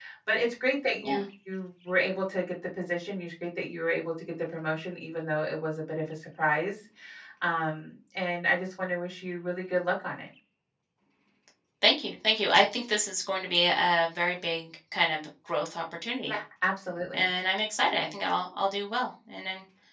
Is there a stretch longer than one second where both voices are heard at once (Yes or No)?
No